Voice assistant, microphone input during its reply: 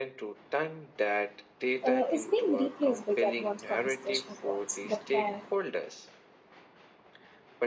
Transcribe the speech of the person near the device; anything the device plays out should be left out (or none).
uh, is being replaced by the advanced conversational bots that can